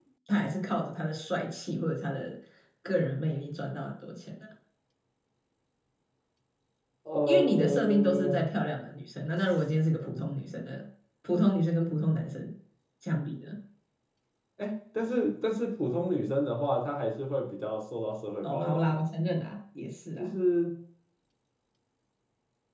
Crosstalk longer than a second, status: present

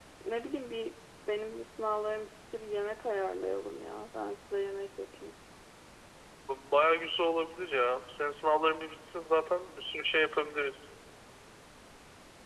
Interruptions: none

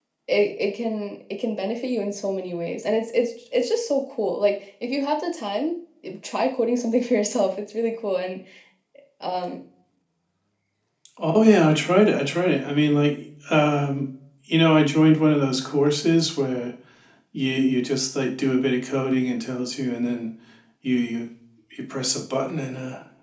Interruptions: none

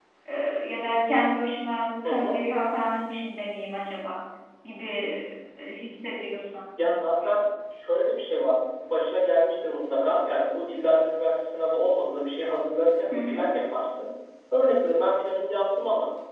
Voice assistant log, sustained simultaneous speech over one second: none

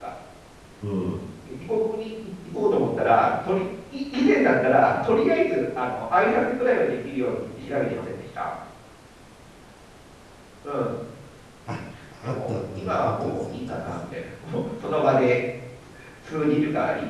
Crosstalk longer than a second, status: present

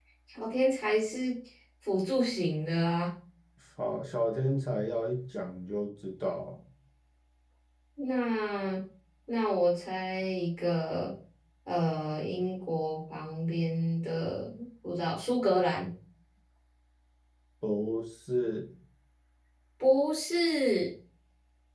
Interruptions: none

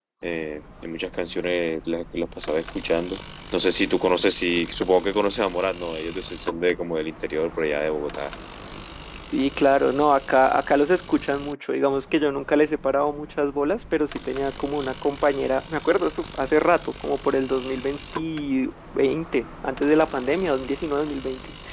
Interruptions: none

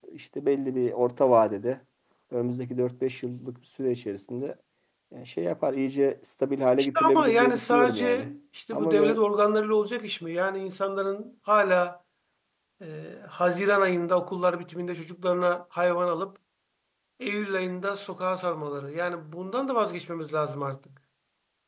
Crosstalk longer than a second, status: present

